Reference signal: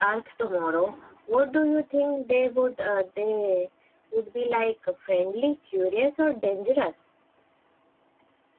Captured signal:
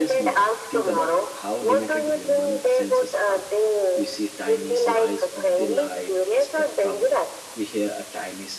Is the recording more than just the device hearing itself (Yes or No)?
Yes